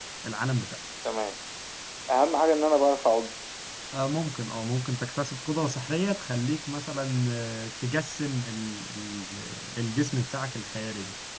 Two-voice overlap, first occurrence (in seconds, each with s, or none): none